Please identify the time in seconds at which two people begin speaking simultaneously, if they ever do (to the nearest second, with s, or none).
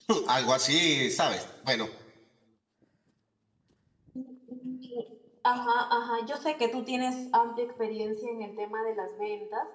none